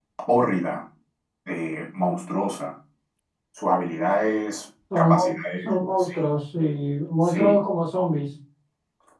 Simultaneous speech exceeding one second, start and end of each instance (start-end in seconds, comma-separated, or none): 5.0-6.2